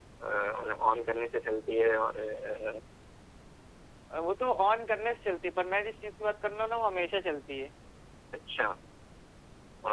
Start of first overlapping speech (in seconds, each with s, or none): none